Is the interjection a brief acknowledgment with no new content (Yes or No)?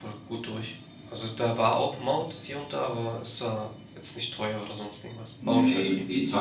No